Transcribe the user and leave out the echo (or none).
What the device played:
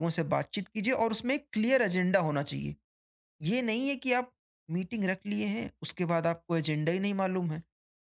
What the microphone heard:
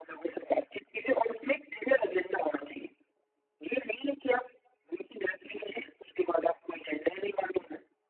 none